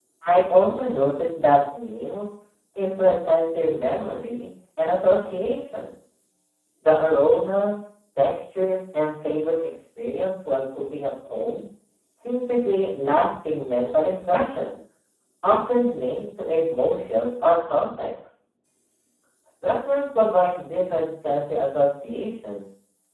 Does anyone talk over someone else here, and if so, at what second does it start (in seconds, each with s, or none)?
none